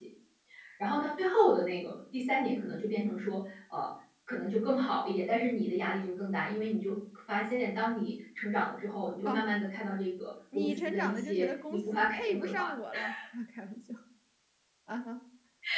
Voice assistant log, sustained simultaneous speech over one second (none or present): present